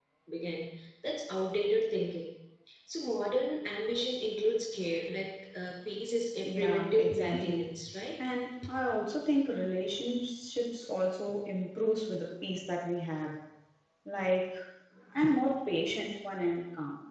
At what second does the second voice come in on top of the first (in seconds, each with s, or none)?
6.4 s